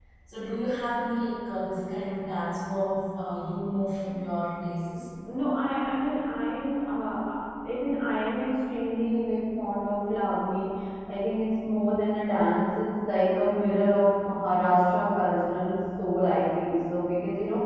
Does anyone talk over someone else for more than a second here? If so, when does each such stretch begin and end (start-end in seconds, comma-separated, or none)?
none